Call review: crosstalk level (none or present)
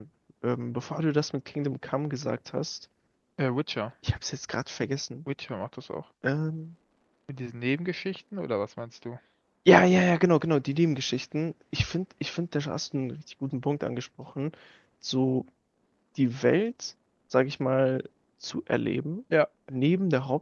none